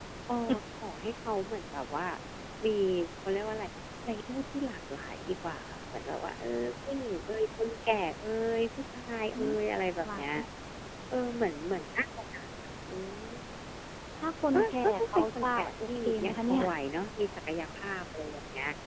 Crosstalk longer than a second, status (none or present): present